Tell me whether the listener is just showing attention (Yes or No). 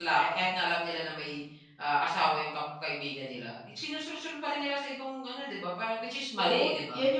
No